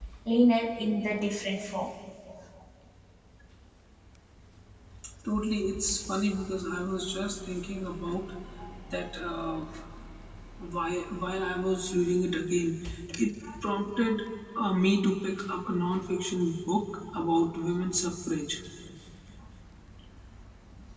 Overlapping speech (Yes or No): No